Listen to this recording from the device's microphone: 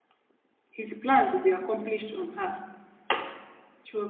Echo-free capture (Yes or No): Yes